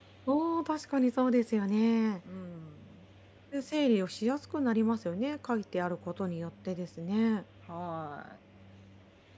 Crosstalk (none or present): none